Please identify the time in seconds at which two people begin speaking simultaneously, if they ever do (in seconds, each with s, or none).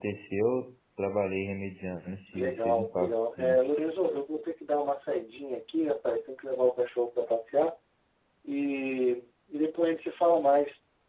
2.3 s